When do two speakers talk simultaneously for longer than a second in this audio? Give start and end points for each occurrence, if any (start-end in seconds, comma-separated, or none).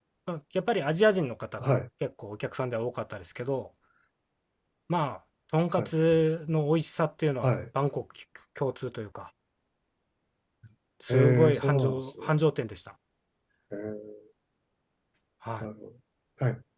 11.1-12.4